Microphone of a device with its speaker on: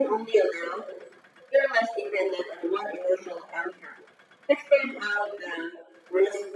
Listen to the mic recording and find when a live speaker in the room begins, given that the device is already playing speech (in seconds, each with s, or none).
none